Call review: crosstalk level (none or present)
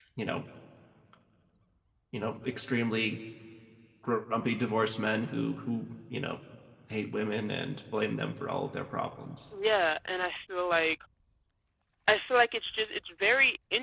none